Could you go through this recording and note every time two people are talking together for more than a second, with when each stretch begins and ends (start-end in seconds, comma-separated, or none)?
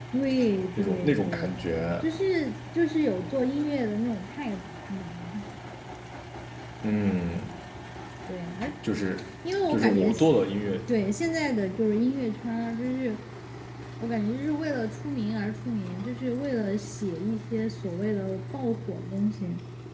0.8-2.0